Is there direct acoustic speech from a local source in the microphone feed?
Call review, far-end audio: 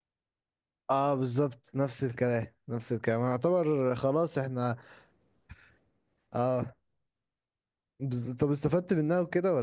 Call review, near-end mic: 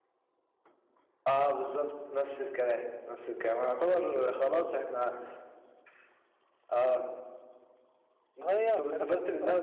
Yes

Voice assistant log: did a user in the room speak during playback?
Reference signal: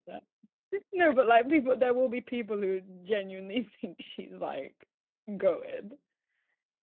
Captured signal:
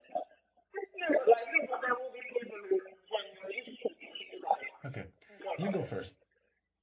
Yes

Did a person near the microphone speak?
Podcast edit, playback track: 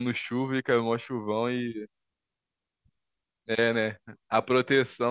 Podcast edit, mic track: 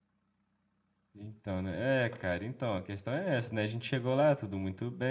Yes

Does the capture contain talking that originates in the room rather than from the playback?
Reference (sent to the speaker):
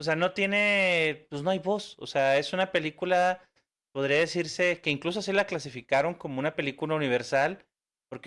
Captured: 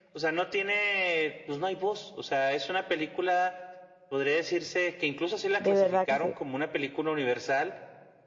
Yes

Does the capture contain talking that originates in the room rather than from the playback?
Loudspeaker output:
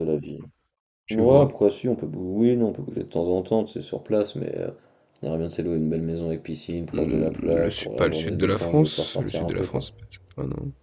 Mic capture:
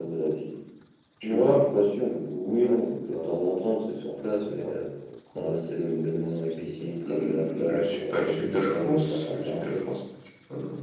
Yes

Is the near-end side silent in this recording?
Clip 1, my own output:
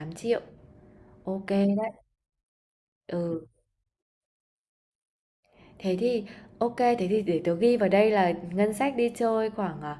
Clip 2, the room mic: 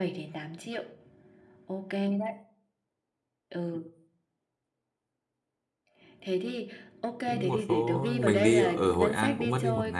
No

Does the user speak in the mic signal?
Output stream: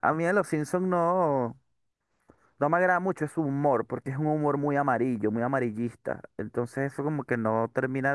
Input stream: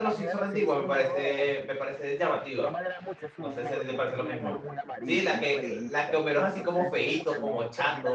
Yes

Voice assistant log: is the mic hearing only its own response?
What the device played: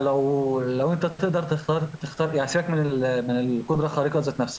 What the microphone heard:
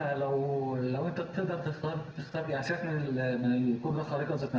Yes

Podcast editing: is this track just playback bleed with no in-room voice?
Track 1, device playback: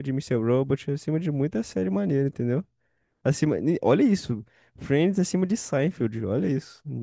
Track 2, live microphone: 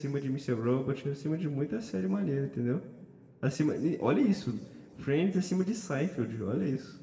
Yes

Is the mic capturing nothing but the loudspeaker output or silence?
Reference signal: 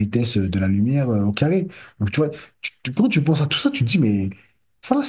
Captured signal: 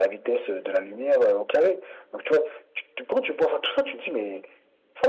Yes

